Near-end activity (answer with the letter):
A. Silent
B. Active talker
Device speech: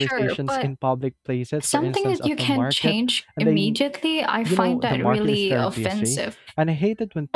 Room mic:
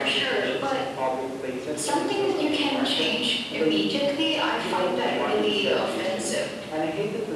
A